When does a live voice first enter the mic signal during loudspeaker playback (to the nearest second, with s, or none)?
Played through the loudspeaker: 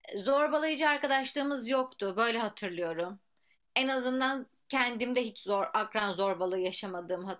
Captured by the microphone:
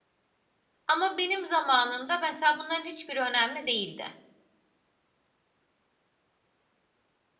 1 s